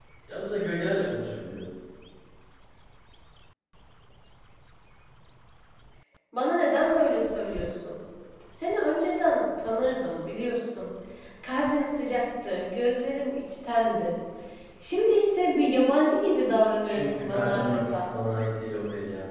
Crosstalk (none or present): present